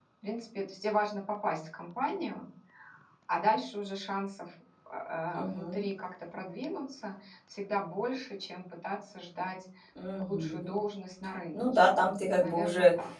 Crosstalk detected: Yes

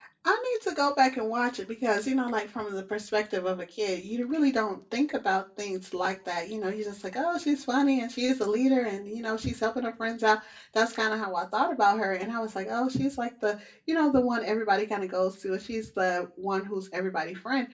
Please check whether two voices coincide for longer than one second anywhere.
No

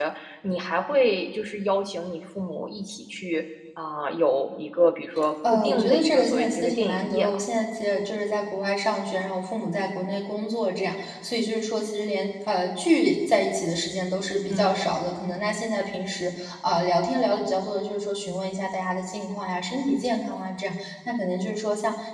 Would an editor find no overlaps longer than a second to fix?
No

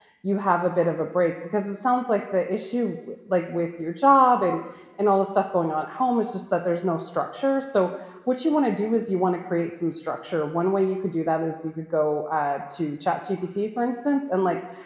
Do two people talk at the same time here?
No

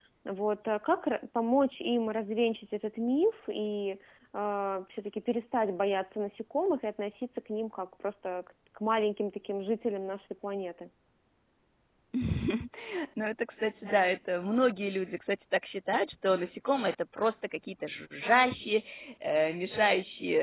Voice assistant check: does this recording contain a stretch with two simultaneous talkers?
No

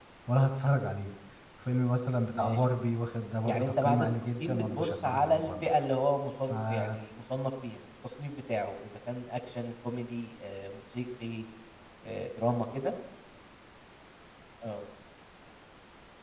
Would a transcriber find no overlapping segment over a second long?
No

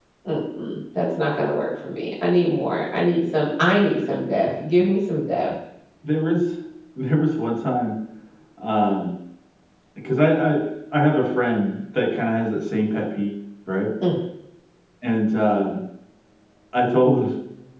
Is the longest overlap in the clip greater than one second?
No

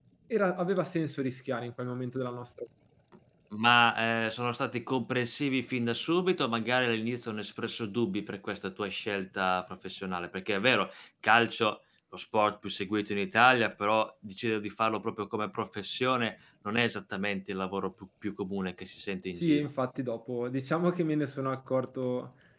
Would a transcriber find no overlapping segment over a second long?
Yes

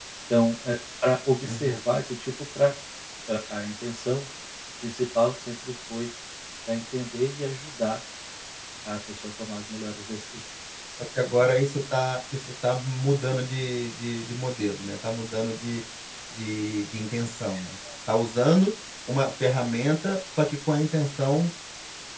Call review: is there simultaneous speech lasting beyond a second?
No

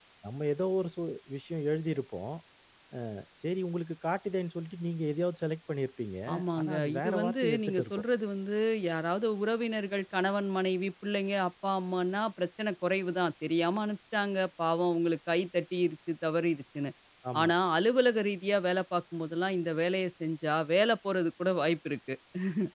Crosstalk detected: Yes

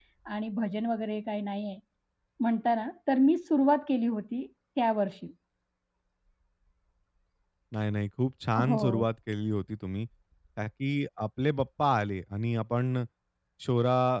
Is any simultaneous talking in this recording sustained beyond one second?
No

